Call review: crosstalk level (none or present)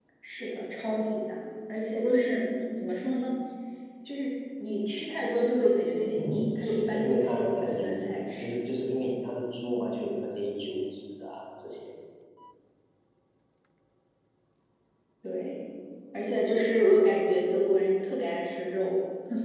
present